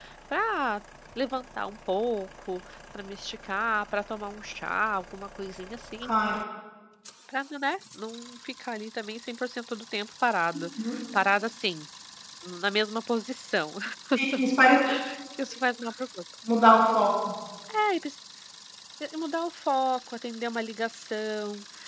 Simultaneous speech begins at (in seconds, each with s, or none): none